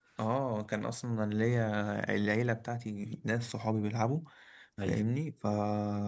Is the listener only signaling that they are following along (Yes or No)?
Yes